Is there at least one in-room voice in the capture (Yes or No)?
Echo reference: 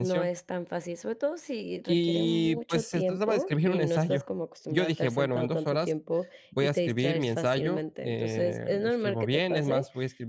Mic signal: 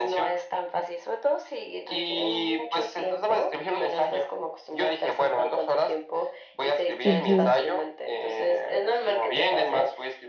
Yes